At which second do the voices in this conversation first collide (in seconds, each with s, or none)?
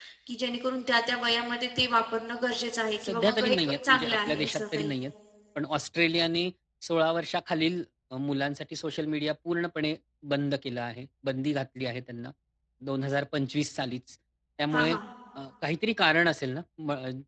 3.0 s